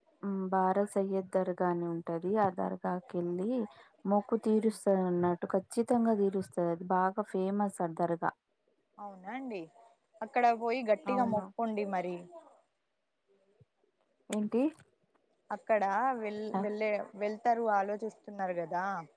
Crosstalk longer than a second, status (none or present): none